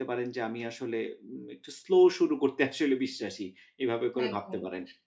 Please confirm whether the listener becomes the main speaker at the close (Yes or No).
Yes